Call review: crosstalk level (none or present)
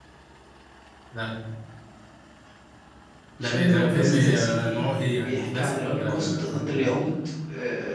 present